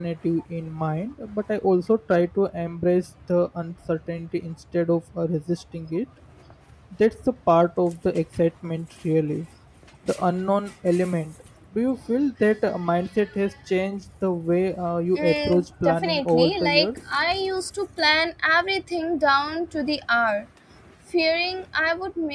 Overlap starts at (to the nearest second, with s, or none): 15 s